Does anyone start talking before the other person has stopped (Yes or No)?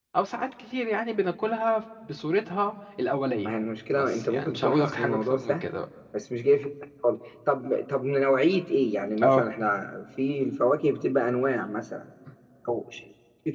Yes